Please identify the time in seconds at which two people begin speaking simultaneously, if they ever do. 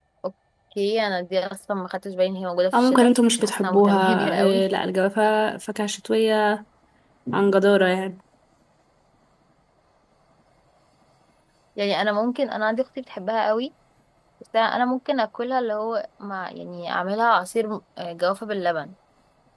2.7 s

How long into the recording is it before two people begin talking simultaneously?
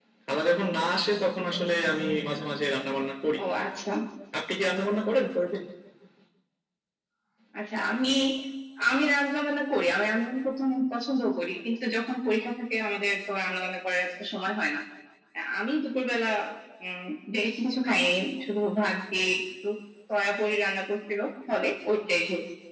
none

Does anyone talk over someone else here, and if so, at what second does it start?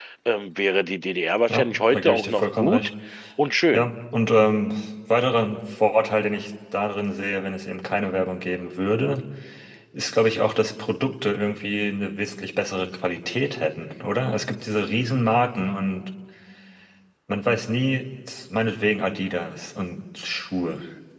1.5 s

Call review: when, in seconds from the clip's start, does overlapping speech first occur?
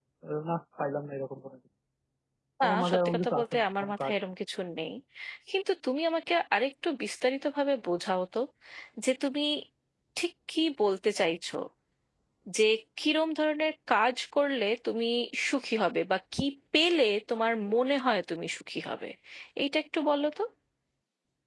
2.6 s

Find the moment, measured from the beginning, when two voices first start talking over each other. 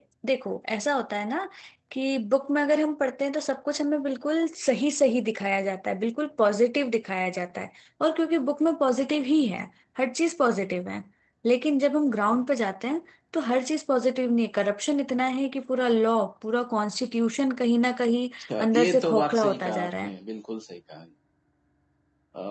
18.7 s

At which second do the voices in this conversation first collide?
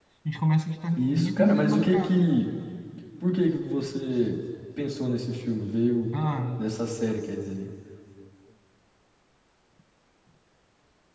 1.0 s

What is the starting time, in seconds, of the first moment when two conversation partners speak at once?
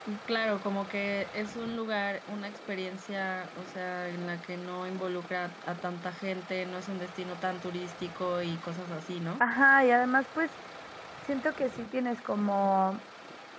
none

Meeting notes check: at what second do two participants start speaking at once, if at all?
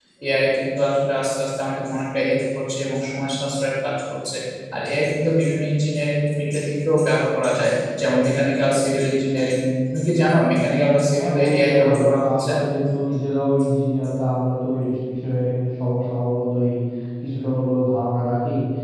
11.1 s

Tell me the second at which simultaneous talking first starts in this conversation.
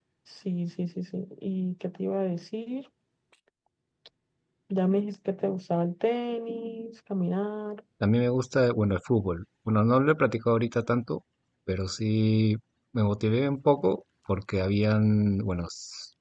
none

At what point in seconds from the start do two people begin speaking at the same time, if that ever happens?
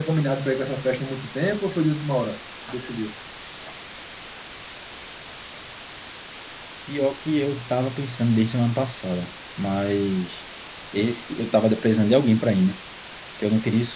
none

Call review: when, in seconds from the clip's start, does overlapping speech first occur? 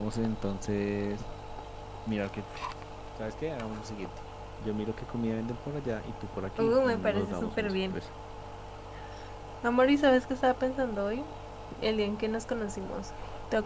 6.6 s

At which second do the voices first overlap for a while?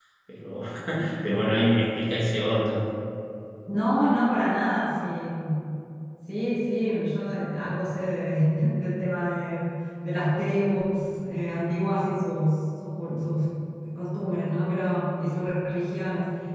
none

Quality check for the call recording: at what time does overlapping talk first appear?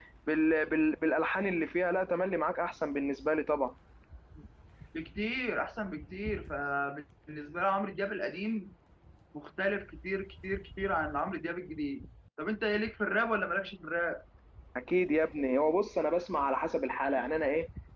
none

